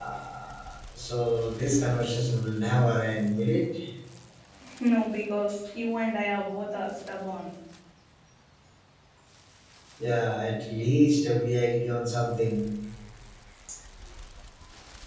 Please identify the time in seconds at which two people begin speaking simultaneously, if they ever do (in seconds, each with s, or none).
none